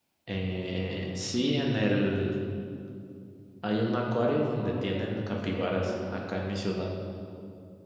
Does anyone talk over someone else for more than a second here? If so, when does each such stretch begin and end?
4.2-6.2

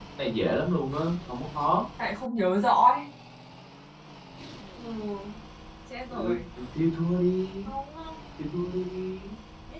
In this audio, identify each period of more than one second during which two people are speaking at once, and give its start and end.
none

